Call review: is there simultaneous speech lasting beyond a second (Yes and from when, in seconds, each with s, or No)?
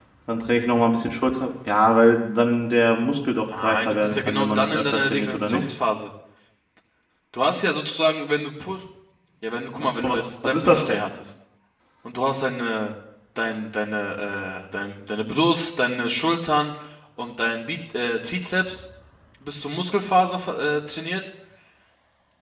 Yes, from 3.6 s